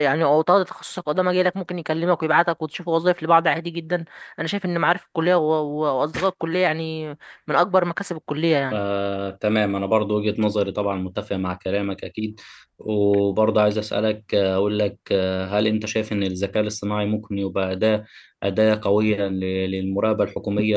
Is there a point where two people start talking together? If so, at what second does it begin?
none

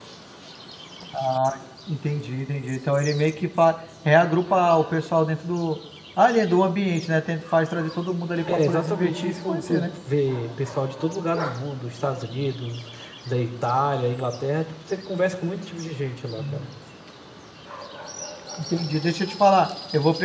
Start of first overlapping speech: 8.5 s

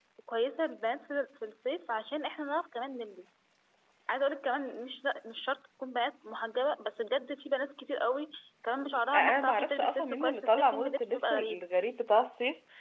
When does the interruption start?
9.1 s

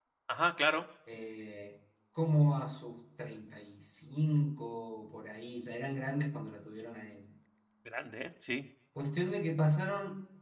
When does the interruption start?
none

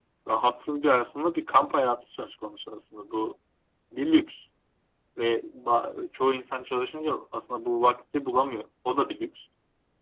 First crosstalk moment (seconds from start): none

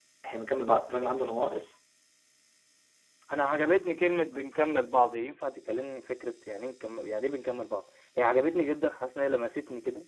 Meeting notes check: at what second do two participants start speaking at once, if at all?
none

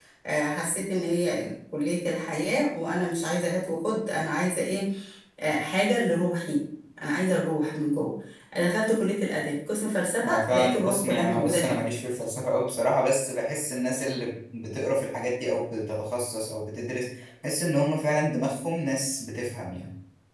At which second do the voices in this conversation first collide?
10.2 s

